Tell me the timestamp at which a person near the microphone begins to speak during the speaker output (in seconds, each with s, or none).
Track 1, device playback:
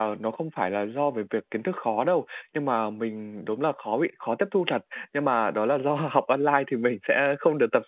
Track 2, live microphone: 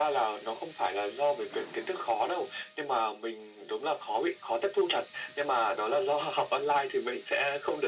none